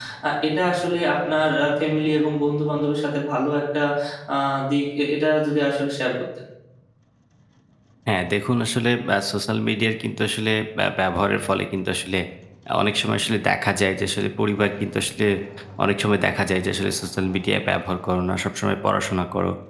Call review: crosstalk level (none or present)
none